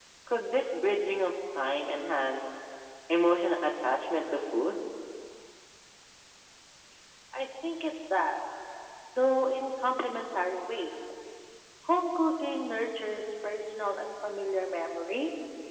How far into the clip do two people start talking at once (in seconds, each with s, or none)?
none